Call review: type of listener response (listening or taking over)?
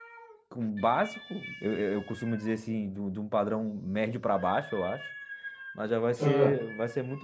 listening